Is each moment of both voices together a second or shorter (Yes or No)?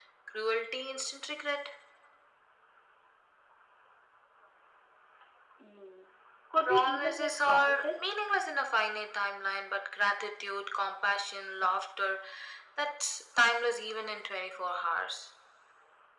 No